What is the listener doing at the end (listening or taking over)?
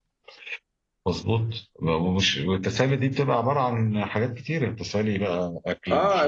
taking over